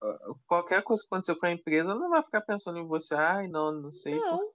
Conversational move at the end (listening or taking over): listening